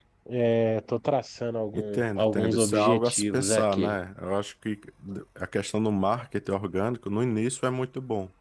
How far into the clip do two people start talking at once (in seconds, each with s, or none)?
1.7 s